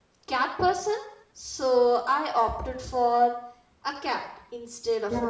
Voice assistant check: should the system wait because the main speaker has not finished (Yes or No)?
No